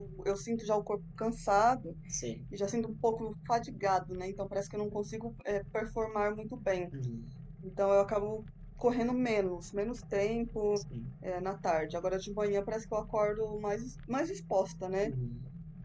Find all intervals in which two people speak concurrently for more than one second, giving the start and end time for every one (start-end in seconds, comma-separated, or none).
none